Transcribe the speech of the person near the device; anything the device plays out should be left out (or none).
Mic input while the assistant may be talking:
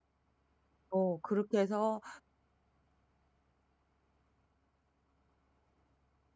어 그렇게 해서